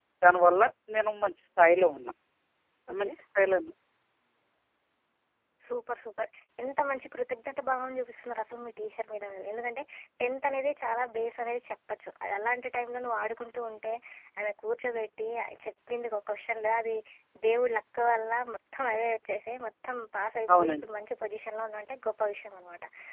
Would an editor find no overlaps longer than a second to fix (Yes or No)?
Yes